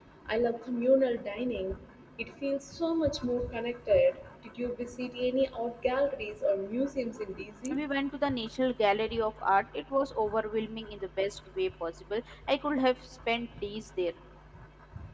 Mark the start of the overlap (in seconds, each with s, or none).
none